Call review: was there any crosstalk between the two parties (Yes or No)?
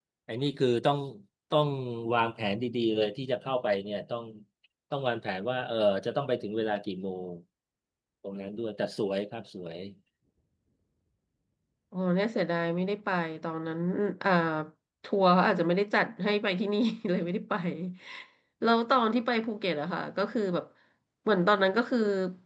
No